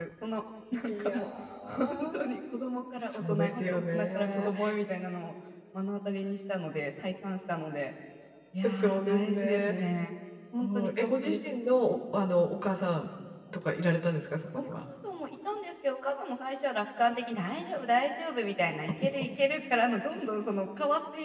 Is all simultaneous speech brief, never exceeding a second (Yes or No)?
No